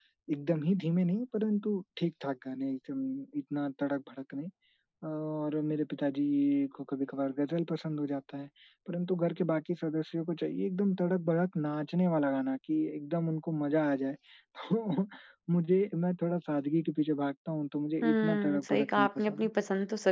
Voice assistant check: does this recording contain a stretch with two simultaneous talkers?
Yes, from 18.0 s

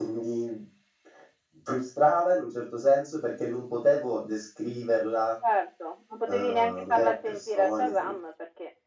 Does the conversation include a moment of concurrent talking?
Yes, from 6.3 s

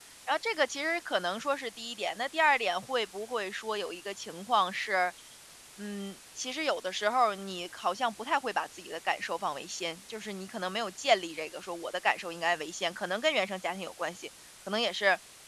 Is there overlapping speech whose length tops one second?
No

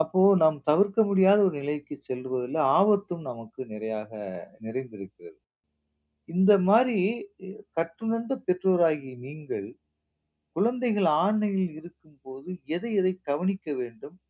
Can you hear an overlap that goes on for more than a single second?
No

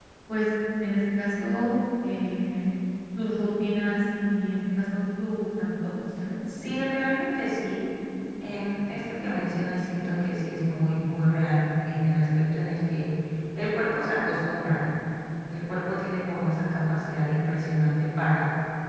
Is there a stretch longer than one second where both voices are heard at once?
No

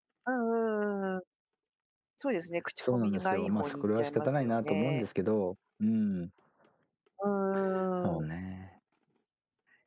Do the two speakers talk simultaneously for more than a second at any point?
Yes, from 2.9 s

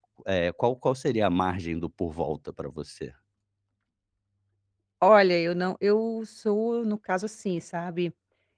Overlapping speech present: No

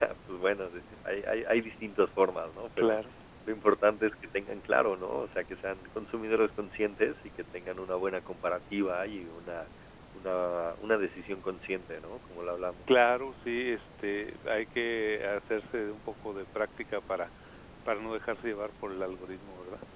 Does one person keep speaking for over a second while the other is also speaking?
No

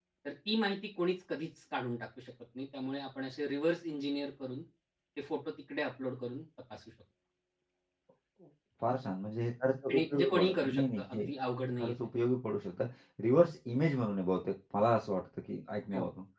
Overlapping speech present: Yes, from 9.9 s

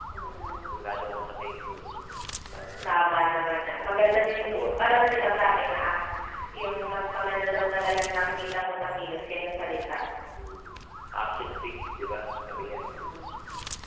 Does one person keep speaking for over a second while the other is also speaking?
No

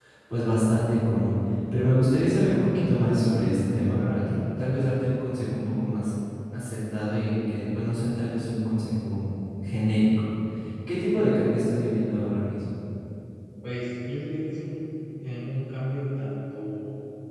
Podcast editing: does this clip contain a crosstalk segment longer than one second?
No

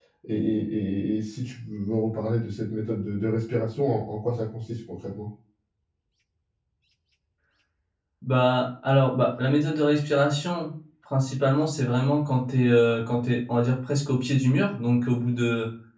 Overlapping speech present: No

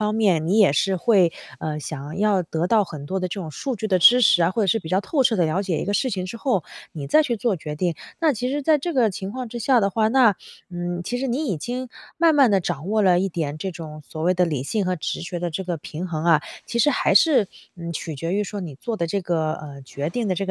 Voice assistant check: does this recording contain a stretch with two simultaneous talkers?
No

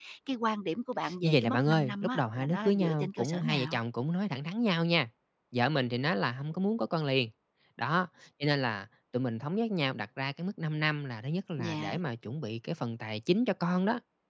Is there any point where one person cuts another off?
Yes, from 1.2 s

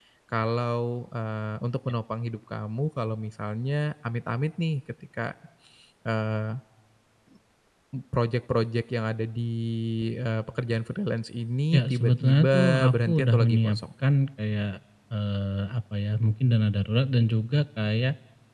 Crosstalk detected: Yes, from 11.7 s

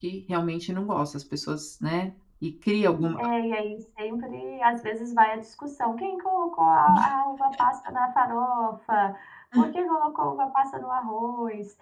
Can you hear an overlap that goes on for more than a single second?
No

